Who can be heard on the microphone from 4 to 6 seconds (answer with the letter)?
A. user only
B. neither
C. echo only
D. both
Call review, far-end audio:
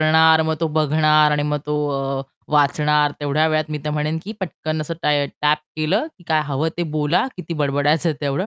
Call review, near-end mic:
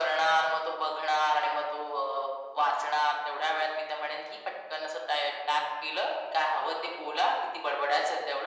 C